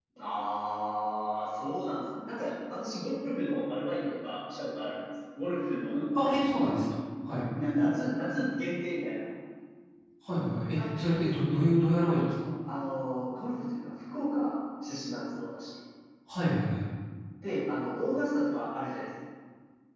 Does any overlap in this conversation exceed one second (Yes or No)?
No